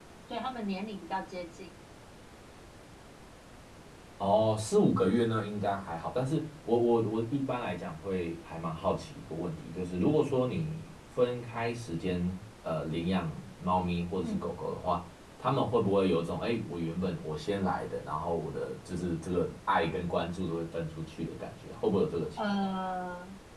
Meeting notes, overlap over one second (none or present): none